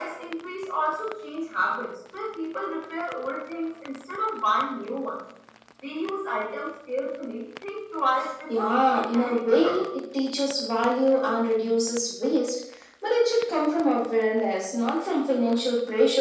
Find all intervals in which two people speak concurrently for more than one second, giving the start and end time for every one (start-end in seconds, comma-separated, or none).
8.6-9.8